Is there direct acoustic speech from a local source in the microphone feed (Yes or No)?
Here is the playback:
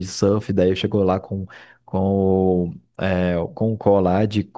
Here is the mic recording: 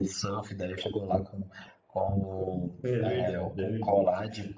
Yes